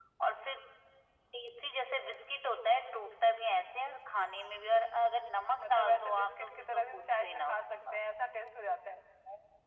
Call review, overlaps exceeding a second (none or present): present